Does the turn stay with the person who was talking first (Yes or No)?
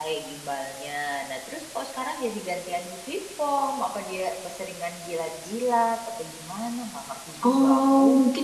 No